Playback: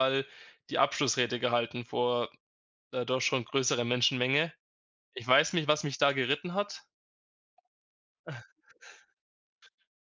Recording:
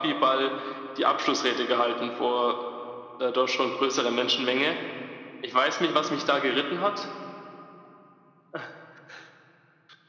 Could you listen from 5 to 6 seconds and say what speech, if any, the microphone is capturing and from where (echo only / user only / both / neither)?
echo only